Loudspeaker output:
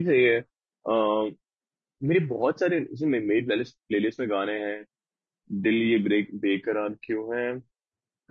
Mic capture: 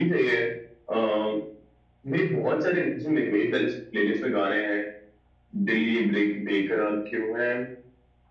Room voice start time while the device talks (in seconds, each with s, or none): none